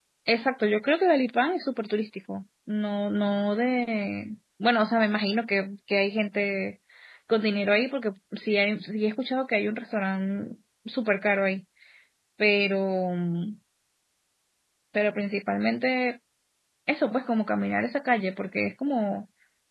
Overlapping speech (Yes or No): No